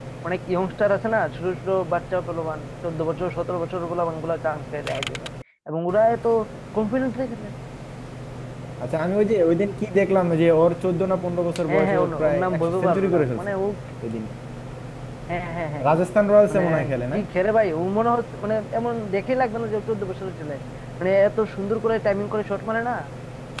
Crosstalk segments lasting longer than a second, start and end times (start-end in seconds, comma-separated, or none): 11.7-13.5